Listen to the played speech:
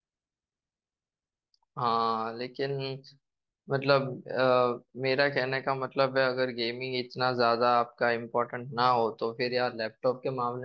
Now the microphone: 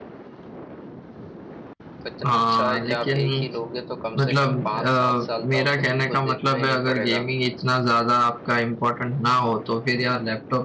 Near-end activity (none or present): present